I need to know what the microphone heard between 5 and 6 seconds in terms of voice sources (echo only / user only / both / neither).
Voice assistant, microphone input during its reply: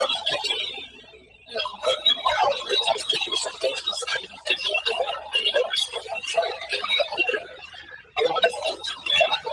echo only